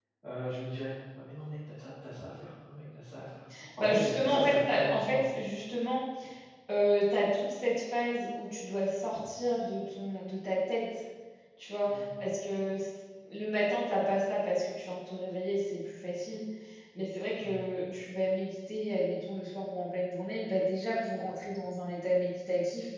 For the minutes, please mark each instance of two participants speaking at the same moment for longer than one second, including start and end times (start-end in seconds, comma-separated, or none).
3.8-5.2